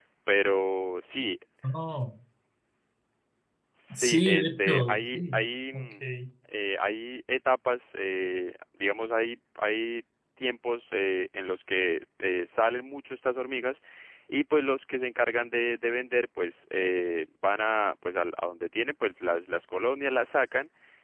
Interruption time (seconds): 3.9 s

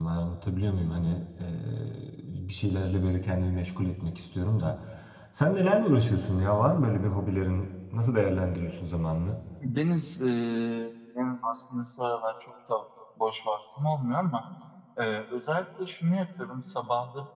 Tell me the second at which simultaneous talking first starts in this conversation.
none

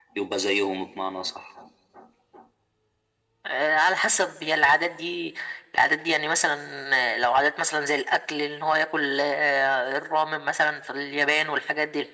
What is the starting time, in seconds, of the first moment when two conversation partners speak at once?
none

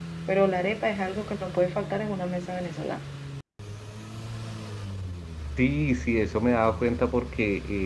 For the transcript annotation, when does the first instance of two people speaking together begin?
none

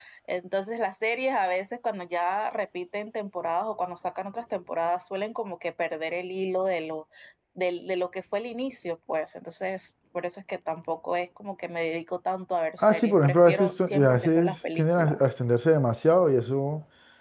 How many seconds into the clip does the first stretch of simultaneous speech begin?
12.8 s

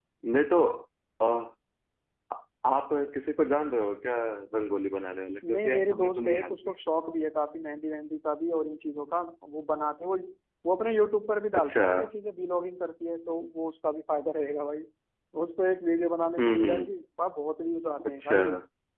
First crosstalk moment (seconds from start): 5.5 s

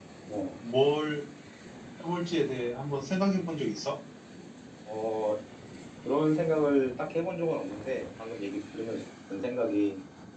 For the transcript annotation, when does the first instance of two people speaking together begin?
none

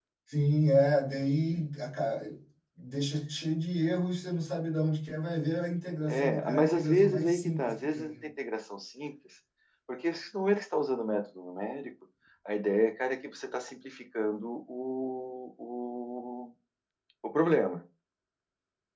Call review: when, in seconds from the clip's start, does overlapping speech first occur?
6.1 s

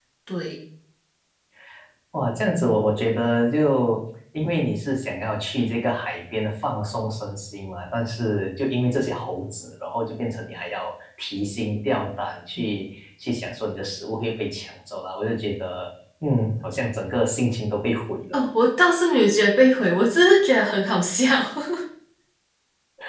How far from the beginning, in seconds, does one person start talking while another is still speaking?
none

